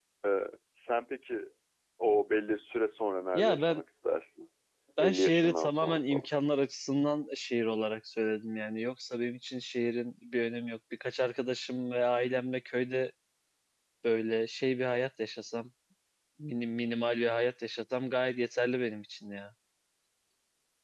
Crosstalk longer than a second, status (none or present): present